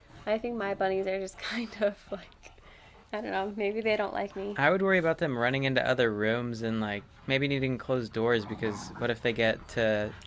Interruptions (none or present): none